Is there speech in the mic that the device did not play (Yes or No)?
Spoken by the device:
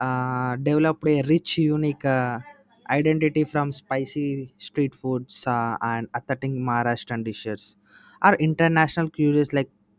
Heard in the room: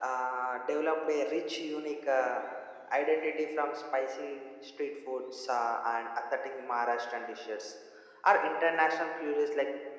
No